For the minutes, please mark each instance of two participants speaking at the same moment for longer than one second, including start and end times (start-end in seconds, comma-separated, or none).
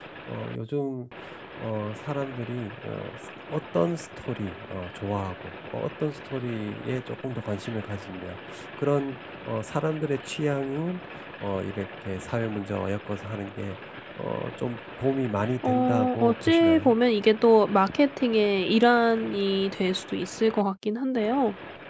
15.6-16.9